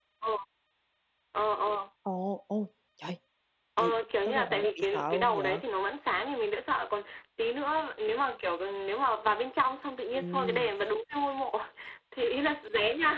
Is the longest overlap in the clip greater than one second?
Yes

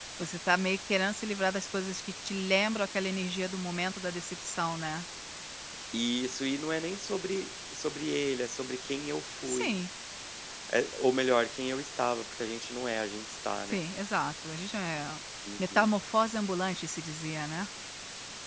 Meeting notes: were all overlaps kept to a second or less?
Yes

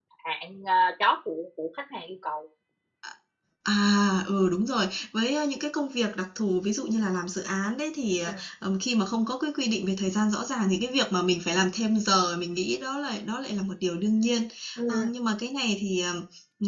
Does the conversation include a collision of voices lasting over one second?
No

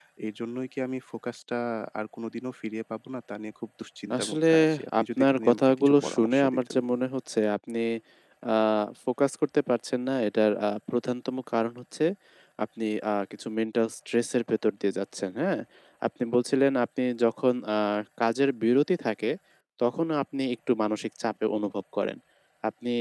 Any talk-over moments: Yes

